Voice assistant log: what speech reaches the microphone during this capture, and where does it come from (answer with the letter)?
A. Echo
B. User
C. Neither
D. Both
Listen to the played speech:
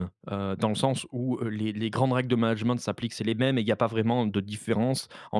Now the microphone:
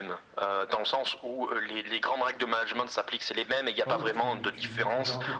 D